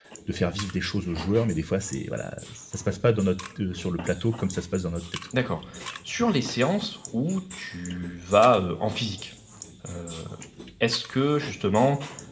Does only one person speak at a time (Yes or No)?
Yes